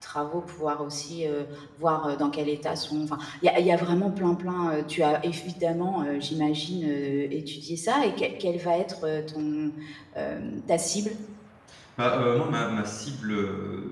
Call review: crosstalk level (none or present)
none